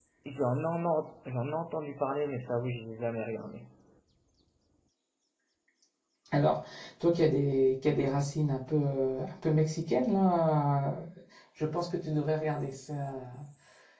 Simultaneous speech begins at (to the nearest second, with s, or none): none